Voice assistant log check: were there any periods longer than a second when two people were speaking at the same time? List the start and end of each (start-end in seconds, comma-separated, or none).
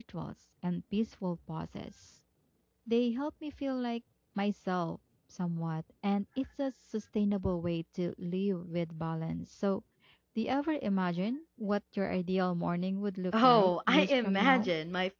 13.4-14.7